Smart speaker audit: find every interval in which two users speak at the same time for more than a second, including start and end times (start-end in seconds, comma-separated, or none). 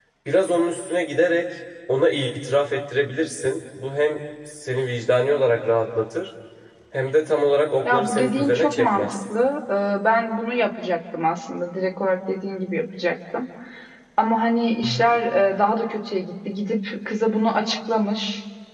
7.8-9.2